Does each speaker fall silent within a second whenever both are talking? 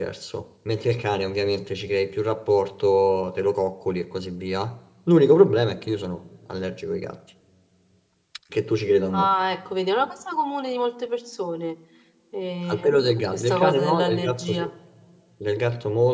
No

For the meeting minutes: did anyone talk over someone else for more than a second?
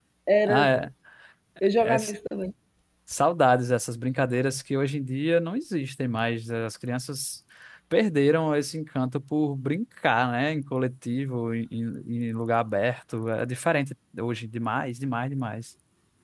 No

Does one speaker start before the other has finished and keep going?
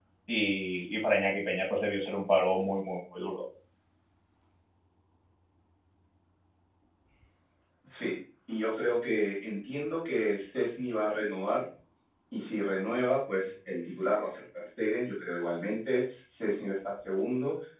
No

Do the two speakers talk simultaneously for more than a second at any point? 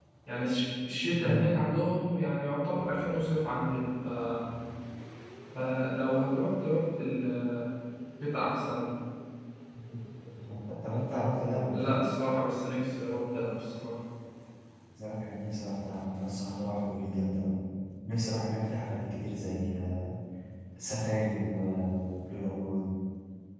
No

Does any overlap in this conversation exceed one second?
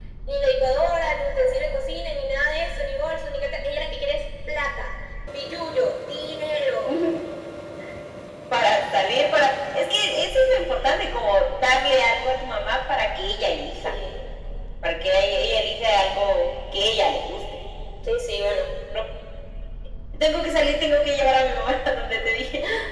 No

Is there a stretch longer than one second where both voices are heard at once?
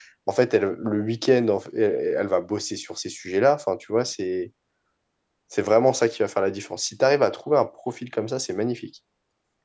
No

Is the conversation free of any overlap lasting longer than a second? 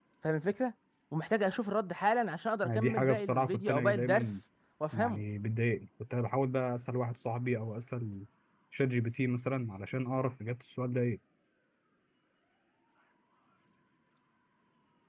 No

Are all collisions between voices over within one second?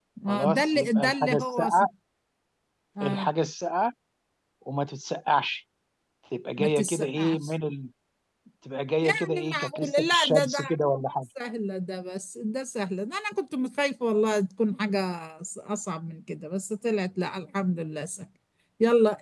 No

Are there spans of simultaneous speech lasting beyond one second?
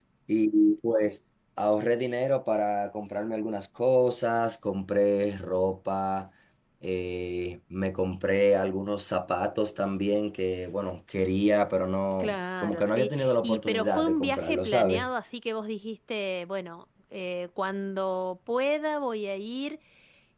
Yes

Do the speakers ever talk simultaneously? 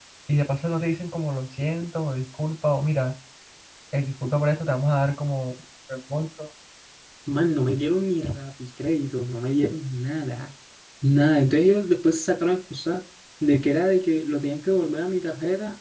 No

